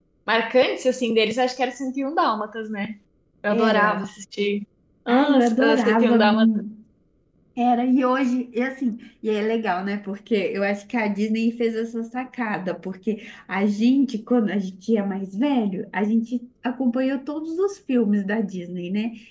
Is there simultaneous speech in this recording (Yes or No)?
Yes